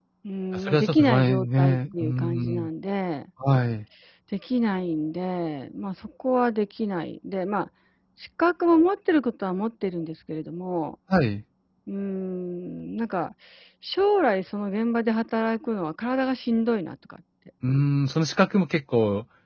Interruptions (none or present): present